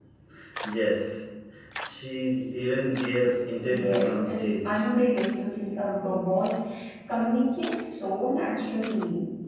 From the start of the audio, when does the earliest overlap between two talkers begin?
3.6 s

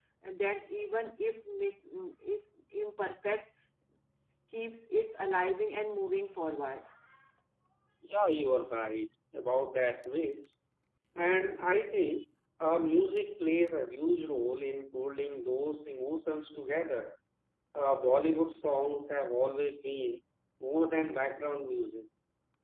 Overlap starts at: none

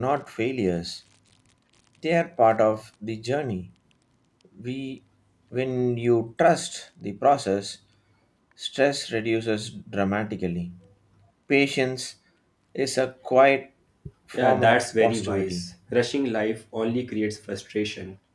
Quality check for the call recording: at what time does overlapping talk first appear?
14.3 s

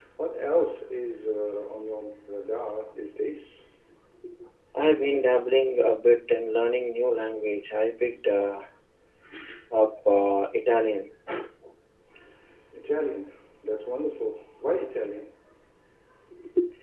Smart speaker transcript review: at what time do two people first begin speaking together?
none

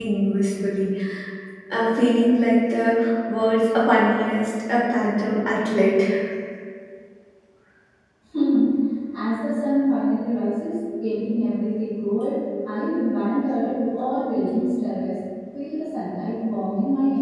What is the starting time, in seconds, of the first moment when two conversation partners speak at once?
none

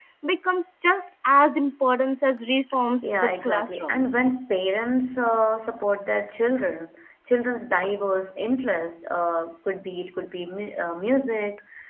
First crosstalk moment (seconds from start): 3.0 s

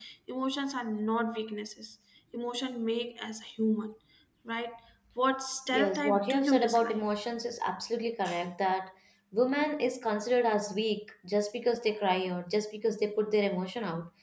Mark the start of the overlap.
5.7 s

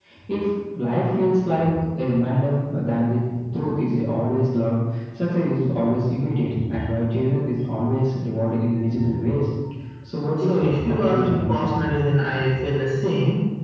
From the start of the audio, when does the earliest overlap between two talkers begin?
10.4 s

